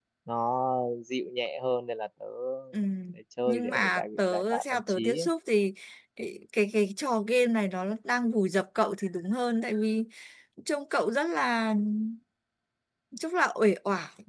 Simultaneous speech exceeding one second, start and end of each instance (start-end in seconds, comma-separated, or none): 3.5-5.3